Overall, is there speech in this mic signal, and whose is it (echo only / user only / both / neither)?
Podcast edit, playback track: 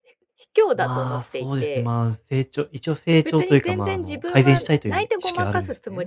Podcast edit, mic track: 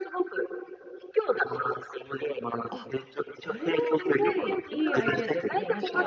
both